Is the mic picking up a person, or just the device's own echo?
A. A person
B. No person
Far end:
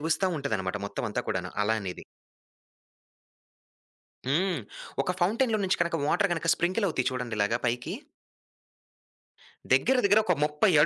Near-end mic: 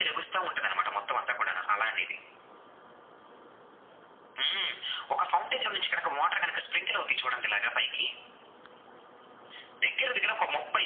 B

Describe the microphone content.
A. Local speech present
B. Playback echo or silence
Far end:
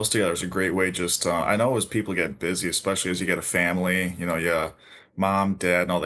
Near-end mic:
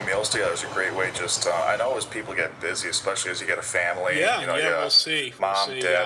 A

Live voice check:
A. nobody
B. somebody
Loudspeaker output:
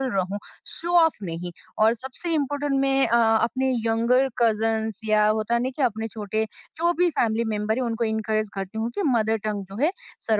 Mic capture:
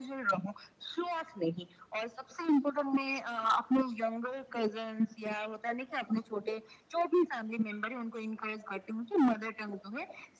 A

